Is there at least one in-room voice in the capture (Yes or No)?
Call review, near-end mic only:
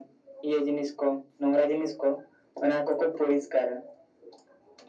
No